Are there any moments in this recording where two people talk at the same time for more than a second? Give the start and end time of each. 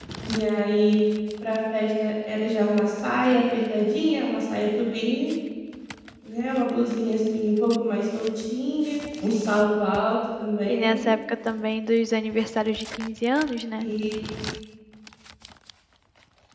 none

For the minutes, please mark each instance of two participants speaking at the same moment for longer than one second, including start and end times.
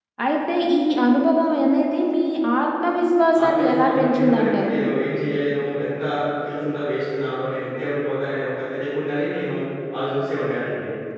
3.4-4.7

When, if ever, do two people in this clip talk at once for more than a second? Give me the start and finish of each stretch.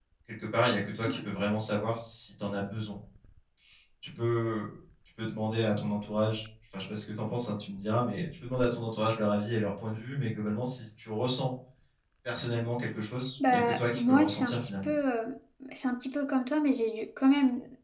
13.4-14.9

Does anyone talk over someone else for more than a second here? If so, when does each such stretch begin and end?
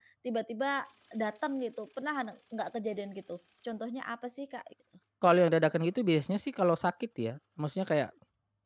none

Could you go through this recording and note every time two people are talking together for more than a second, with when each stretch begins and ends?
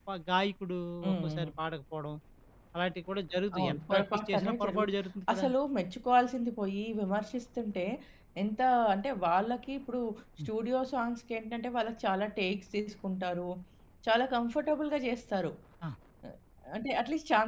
3.6-5.0

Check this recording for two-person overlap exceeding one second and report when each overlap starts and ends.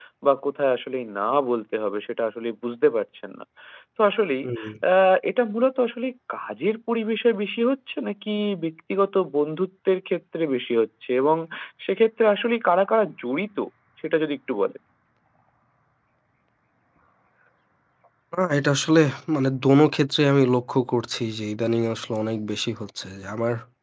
none

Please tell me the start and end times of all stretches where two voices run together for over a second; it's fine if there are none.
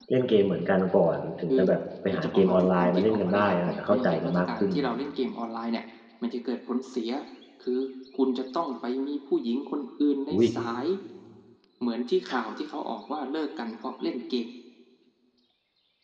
2.1-4.9

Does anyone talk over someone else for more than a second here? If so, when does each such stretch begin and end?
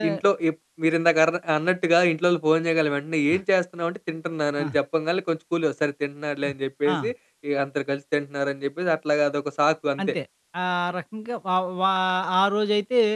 none

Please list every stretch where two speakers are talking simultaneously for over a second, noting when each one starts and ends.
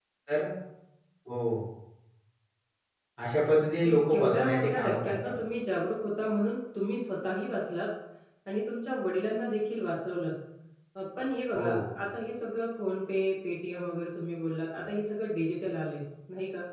3.6-5.2

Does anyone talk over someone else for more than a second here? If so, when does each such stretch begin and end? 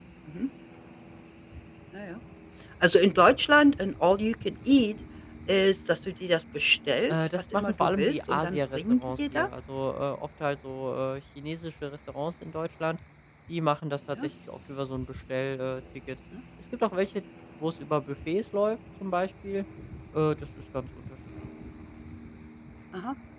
7.1-9.5

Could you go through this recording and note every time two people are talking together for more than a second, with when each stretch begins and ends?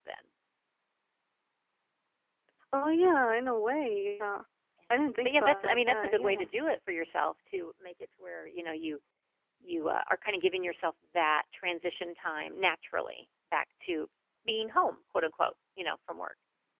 5.2-6.5

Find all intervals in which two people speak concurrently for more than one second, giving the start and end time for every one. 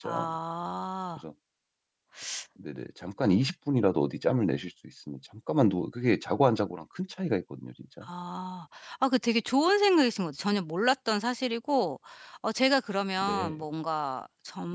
none

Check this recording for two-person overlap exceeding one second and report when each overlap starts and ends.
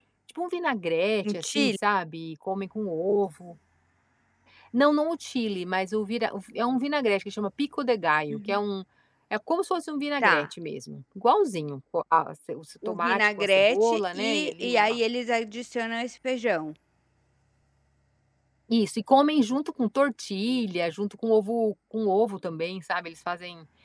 12.9-15.0

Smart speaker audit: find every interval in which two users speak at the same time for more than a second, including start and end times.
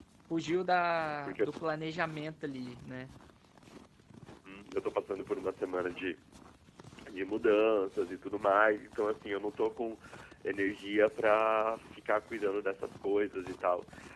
none

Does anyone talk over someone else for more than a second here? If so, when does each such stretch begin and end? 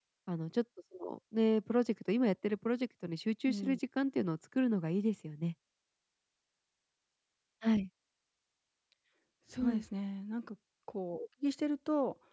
none

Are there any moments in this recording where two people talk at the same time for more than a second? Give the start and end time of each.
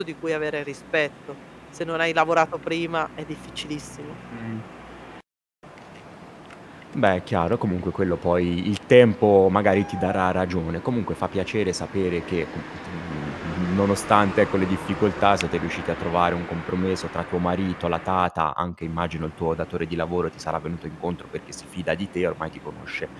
none

